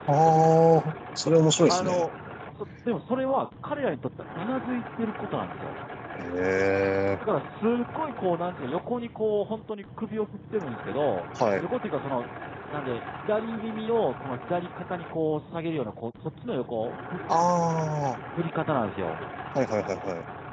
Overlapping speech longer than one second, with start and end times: none

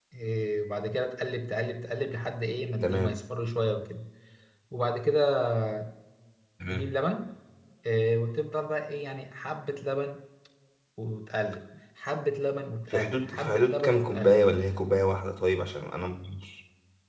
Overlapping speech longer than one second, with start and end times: 12.9-14.4

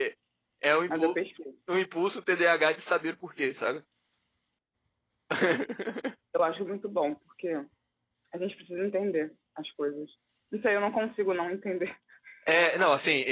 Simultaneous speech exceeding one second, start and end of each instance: none

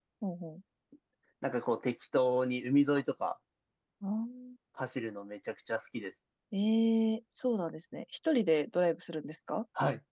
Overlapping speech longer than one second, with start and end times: none

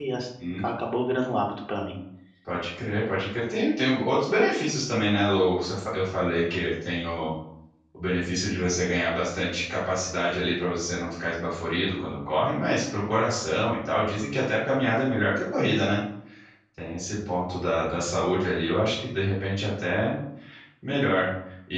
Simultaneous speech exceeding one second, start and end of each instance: none

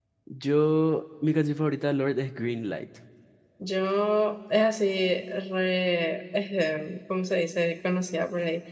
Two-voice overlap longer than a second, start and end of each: none

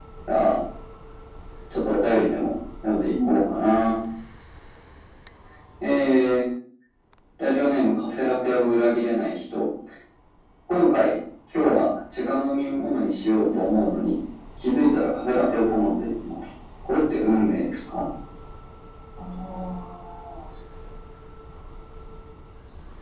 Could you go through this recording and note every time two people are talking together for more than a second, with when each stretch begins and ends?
none

